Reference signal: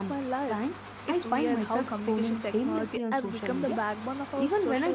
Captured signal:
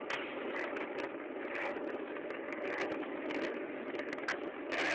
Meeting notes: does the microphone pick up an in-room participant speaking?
No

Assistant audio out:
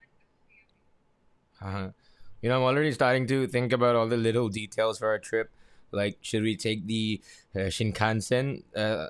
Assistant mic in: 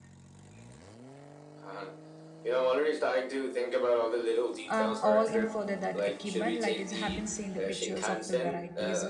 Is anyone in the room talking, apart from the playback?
Yes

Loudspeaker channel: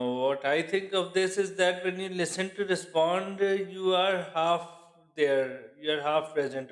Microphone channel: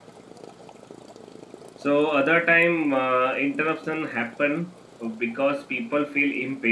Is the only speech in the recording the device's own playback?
No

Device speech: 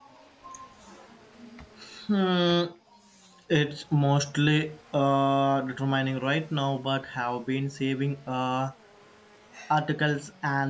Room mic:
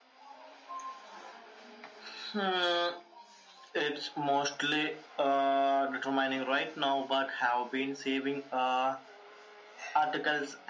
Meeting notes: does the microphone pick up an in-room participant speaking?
No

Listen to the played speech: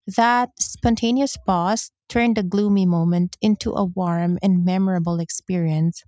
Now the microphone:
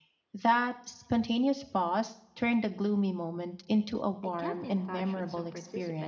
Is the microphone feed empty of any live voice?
No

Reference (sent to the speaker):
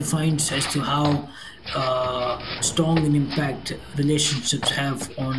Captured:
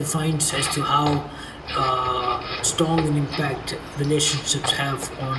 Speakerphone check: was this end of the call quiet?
Yes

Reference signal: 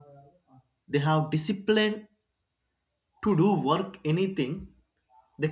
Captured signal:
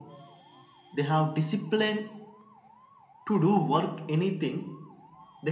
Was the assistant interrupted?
No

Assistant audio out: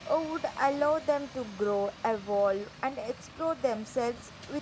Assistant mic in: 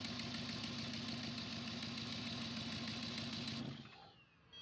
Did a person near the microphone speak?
No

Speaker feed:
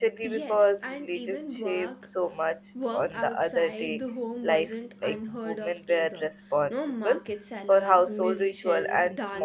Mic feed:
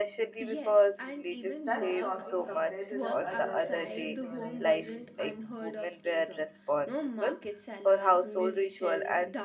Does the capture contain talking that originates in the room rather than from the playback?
Yes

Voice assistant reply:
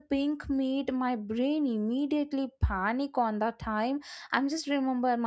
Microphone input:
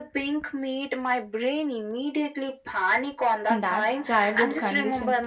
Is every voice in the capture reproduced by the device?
No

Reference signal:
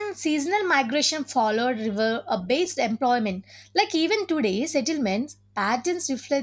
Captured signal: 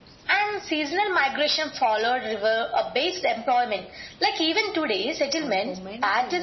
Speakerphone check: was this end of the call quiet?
No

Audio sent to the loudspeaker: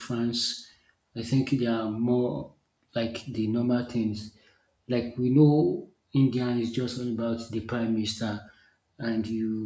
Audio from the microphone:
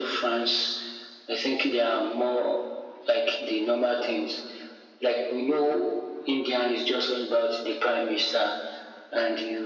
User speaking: No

